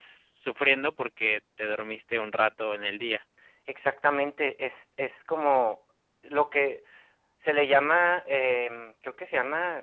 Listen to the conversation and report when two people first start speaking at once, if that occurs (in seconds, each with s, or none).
none